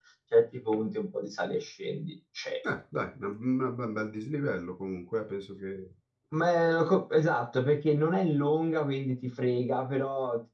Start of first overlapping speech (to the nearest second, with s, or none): none